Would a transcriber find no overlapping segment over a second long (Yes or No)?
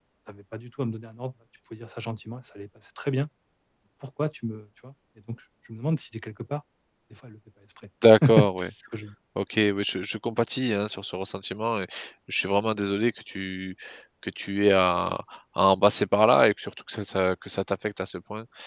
Yes